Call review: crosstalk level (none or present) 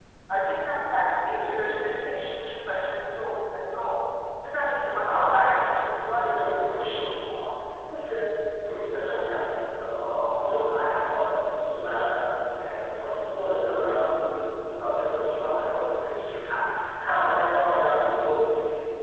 present